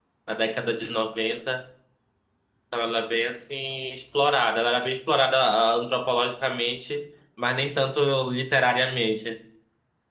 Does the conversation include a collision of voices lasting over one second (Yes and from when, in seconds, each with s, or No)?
No